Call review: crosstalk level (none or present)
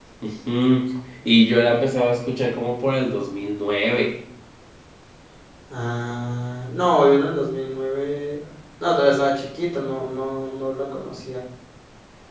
none